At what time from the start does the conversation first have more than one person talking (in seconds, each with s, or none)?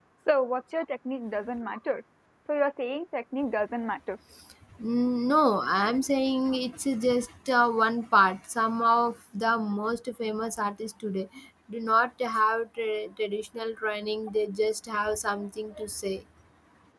none